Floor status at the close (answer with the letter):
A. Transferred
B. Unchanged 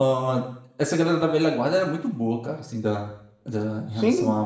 B